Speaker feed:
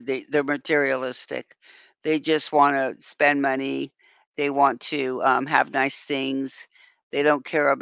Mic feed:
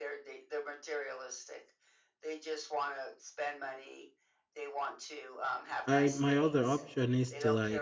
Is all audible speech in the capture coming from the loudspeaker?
No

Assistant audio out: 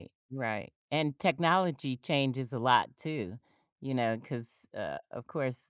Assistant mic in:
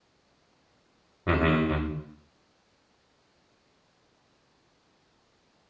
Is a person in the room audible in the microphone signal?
Yes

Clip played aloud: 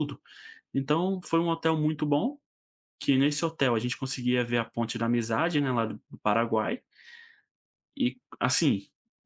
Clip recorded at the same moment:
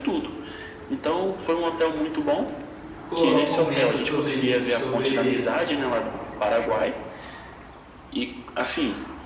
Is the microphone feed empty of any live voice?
No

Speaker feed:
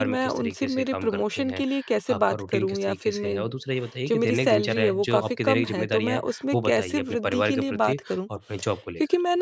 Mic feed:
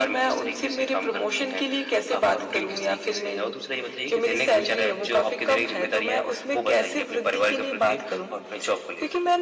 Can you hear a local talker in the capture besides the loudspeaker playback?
No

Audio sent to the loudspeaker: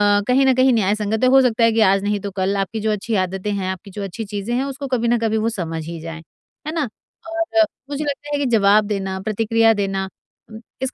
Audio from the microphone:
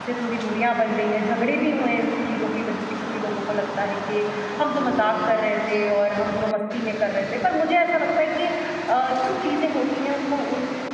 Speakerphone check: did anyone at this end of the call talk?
Yes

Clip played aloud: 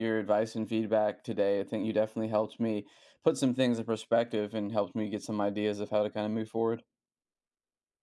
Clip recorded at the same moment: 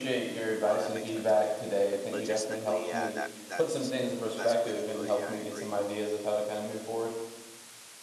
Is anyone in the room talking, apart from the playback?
Yes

